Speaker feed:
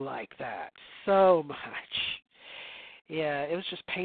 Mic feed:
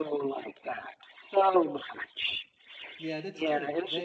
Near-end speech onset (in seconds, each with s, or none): 3.0 s